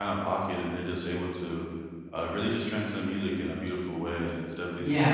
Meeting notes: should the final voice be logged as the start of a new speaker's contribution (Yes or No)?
Yes